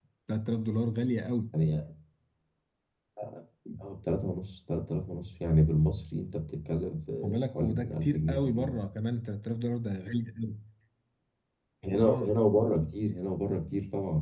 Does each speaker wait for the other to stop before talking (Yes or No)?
No